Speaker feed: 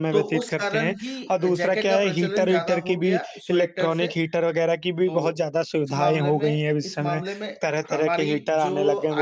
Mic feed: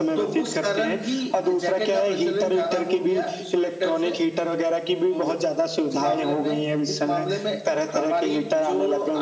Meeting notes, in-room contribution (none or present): none